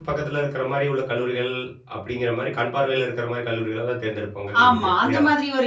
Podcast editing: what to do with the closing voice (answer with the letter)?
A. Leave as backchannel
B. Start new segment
B